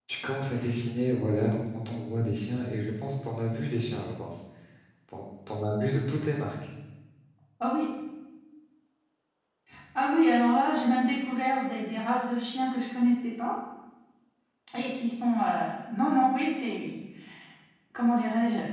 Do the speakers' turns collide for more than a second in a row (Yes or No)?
No